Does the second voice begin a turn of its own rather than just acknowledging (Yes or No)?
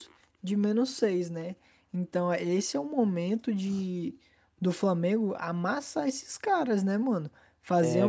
No